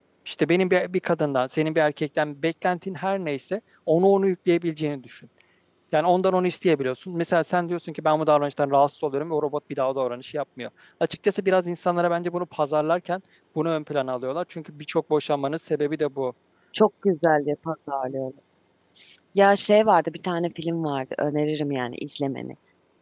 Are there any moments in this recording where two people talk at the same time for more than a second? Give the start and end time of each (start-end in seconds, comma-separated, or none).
none